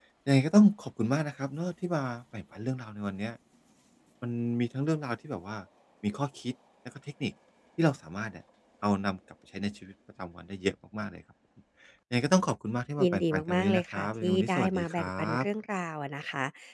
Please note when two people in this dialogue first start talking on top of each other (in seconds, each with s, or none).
13.0 s